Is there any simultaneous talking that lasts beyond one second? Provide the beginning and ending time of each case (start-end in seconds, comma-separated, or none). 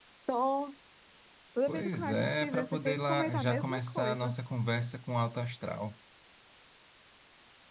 1.7-4.3